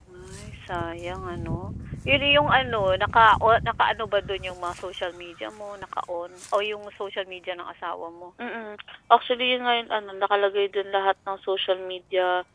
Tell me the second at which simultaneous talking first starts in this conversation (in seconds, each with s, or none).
none